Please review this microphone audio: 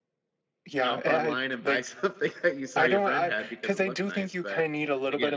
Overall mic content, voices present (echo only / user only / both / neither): both